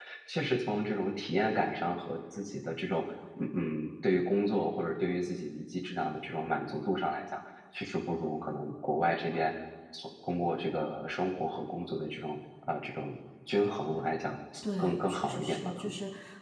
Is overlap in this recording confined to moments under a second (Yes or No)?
No